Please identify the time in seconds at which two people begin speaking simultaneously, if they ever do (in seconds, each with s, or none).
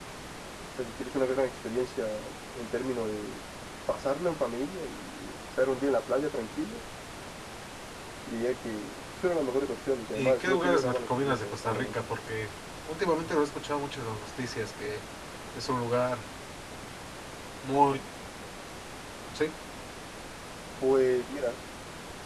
10.1 s